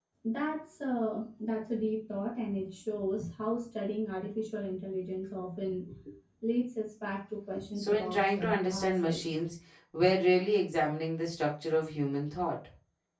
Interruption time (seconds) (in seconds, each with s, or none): 7.8 s